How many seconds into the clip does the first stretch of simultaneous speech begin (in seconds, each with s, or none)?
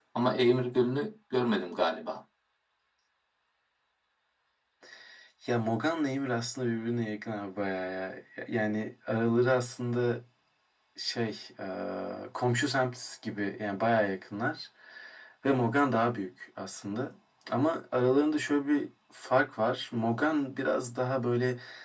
none